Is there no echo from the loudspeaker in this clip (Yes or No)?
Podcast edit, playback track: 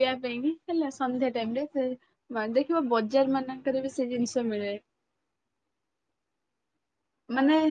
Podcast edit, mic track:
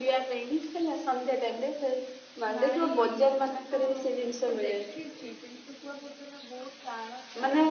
No